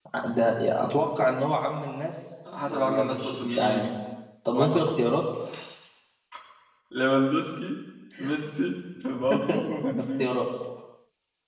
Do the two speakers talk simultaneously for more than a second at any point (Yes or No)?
Yes